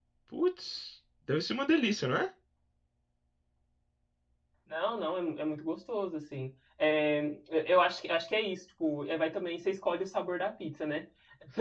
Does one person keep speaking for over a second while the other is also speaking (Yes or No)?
No